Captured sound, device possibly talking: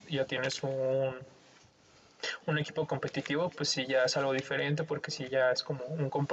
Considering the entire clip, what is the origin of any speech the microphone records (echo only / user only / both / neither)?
user only